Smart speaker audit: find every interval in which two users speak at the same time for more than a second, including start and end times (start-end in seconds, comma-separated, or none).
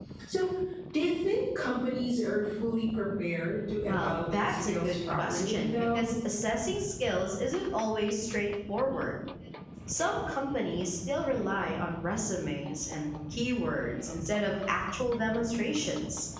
3.9-6.1